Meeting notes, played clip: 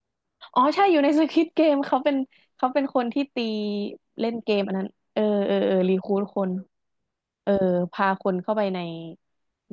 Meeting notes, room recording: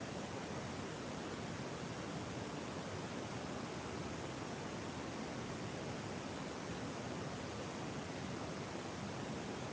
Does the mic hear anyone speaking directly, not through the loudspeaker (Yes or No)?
No